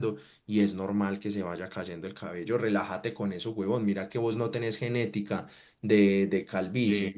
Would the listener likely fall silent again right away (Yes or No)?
Yes